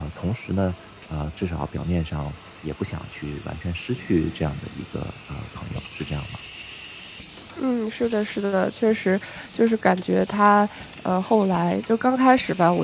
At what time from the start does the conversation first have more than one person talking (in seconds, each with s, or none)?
none